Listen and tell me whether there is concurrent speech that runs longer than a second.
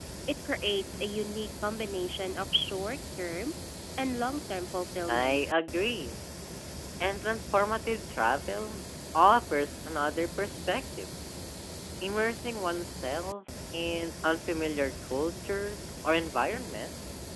No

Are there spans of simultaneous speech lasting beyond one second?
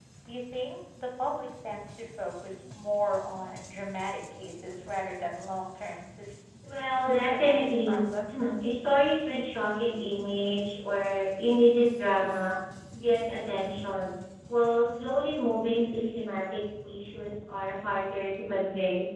Yes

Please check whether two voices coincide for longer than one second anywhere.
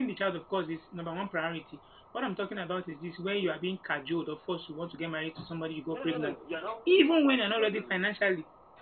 No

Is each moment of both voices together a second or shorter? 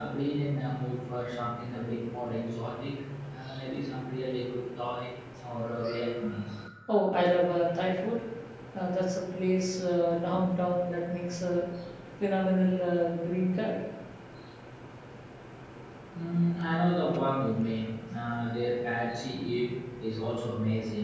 Yes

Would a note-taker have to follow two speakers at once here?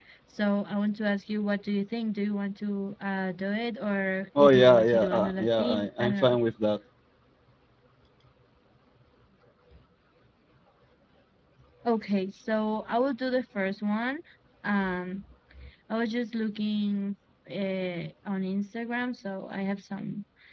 Yes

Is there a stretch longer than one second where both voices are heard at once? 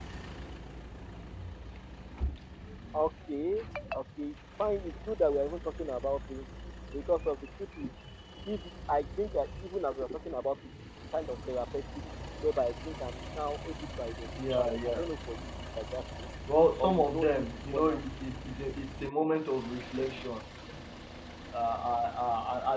Yes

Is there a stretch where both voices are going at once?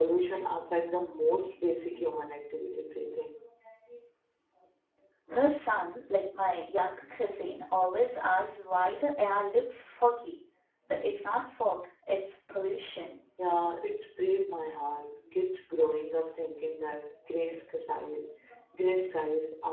No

